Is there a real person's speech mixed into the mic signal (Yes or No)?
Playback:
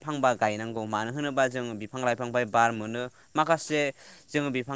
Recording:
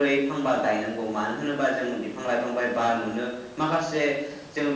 No